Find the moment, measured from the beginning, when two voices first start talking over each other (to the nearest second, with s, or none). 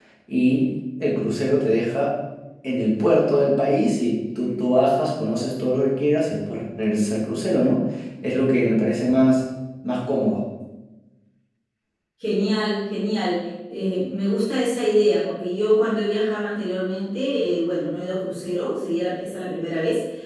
none